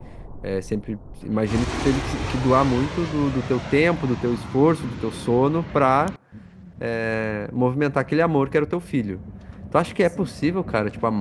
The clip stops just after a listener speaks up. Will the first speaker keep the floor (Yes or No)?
Yes